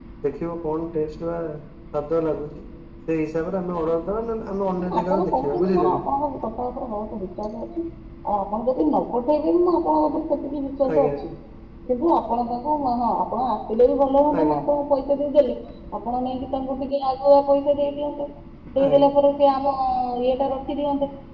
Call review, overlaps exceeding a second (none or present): present